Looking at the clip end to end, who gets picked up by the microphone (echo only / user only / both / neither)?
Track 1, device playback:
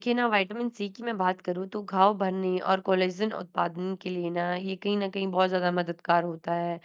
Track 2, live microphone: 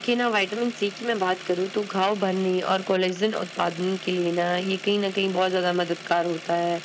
echo only